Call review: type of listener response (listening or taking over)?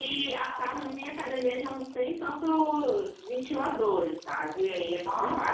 taking over